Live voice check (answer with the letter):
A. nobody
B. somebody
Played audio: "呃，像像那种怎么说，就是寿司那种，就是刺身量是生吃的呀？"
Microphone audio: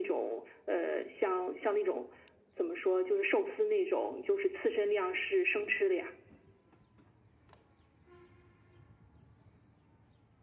A